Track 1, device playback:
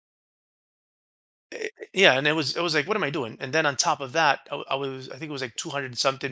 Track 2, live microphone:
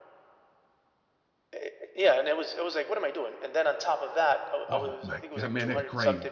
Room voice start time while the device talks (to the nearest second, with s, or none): 5 s